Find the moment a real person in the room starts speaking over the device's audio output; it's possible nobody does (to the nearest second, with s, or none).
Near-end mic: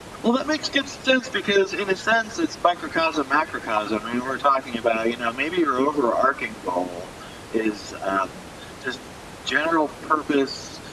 none